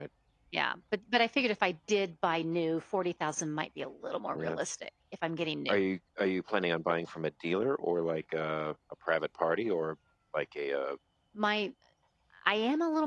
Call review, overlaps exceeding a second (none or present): none